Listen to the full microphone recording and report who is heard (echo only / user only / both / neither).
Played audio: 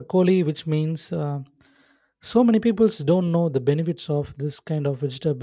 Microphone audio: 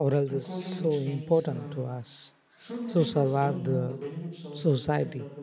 both